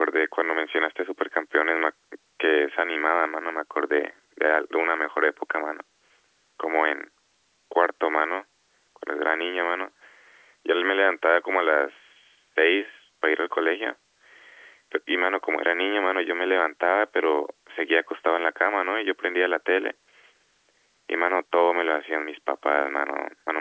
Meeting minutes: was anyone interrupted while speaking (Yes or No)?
No